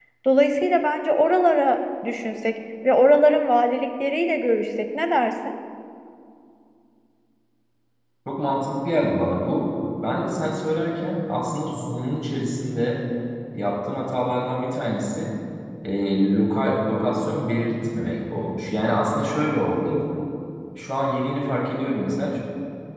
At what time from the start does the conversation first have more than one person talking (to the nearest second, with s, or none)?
none